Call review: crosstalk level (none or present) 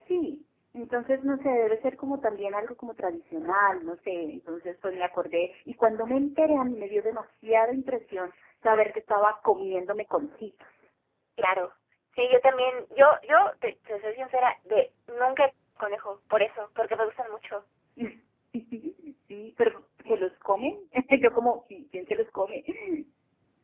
none